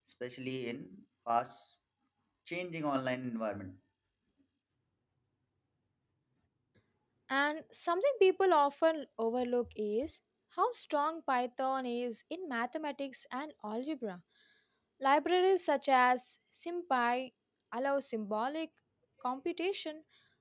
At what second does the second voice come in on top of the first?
none

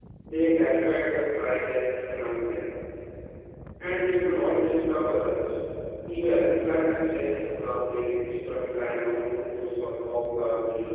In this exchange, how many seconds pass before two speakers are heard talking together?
none

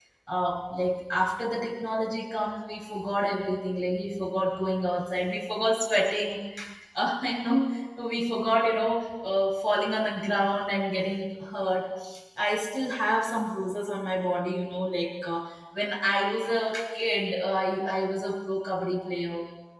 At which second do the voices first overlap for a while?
none

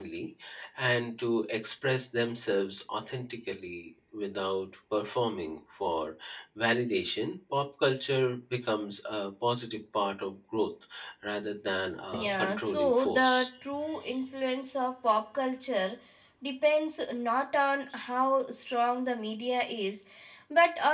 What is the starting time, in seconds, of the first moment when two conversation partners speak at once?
12.1 s

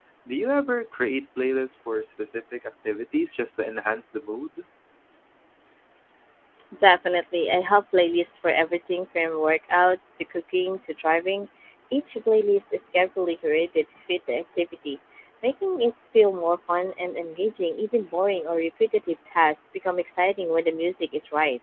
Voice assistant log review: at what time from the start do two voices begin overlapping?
none

